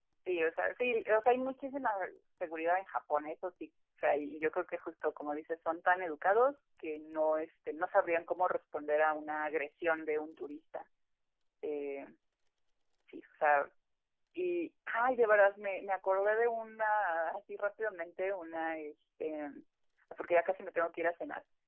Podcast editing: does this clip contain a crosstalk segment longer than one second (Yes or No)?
No